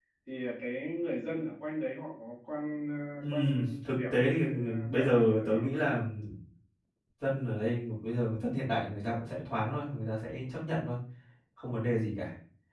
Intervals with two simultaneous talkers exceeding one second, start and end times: 3.8-5.8

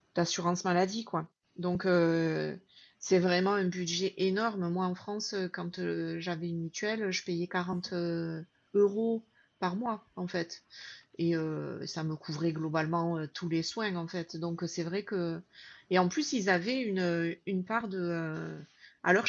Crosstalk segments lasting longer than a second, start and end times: none

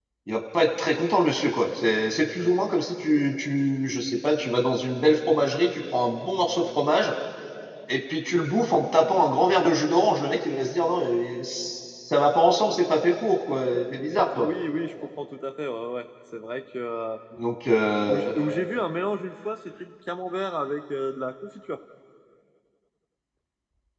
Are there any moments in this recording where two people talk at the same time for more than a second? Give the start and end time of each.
none

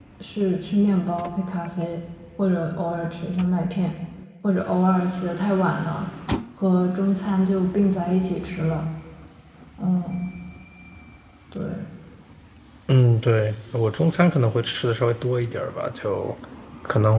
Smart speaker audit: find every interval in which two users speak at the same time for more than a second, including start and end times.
none

